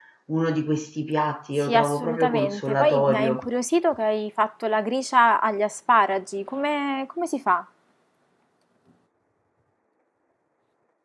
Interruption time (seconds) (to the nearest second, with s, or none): 2 s